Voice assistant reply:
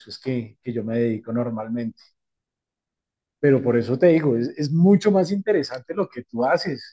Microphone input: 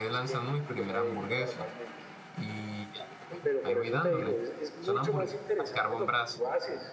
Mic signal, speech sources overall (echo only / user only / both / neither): both